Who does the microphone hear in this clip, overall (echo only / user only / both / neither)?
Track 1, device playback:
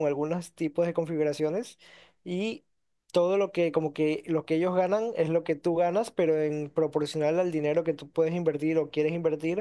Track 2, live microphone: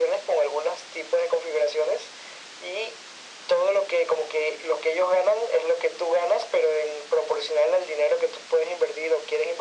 echo only